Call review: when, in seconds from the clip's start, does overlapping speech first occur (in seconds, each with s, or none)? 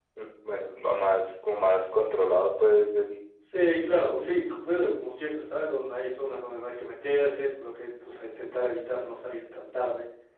none